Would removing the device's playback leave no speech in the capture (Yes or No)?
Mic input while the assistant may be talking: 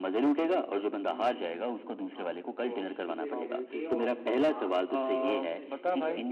No